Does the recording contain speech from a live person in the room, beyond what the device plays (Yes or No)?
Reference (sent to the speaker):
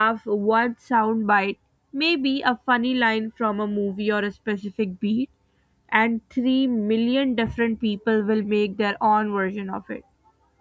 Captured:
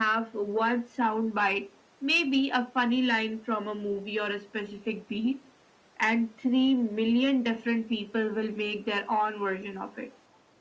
No